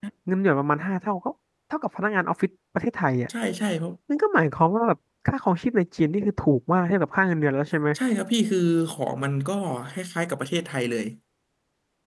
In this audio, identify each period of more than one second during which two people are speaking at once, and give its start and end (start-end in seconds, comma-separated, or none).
none